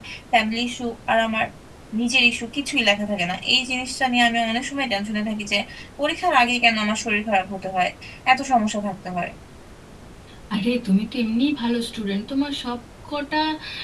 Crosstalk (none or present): none